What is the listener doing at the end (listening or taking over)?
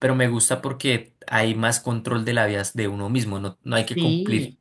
listening